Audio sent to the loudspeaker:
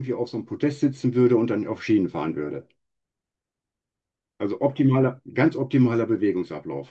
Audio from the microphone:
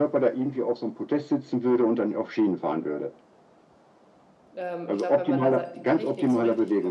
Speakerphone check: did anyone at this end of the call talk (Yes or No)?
Yes